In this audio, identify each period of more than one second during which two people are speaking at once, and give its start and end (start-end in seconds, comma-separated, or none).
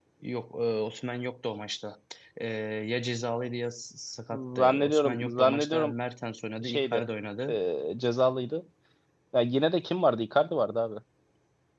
4.3-5.9